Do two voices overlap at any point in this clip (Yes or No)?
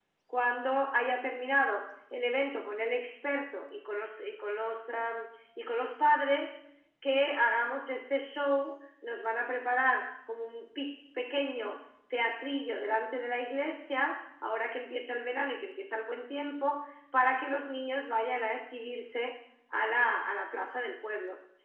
No